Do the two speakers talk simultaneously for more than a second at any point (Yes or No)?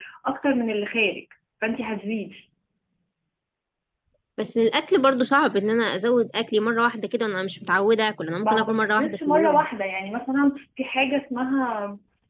Yes